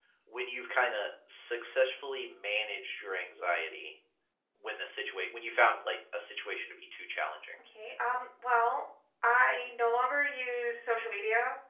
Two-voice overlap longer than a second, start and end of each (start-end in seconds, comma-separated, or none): none